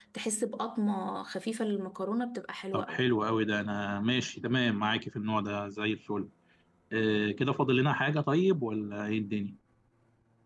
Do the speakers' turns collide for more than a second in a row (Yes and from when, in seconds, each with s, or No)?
No